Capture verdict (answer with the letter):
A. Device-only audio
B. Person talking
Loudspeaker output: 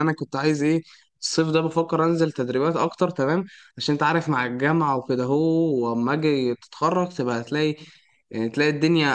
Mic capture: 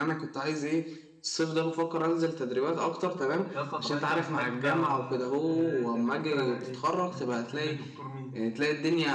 B